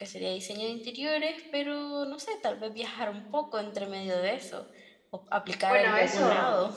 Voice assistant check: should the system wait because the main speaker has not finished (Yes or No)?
No